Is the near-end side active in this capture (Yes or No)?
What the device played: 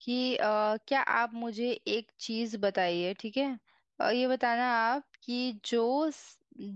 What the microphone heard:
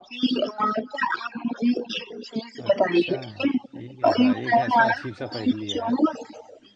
Yes